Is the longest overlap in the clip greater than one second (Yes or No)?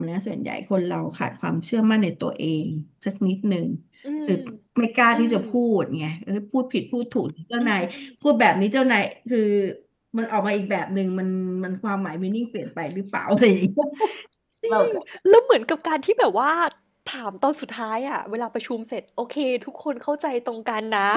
No